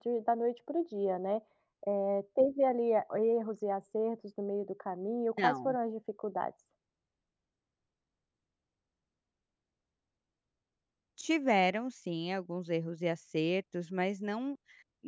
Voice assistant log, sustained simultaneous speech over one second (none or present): none